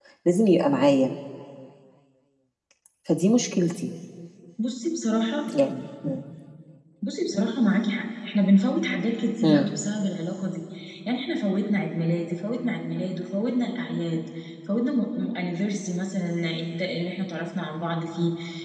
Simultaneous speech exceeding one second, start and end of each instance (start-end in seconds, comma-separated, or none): none